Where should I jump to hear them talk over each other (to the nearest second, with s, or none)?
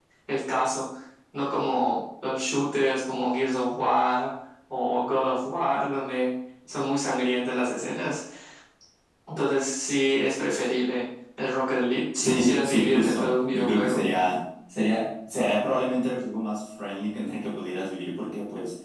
12 s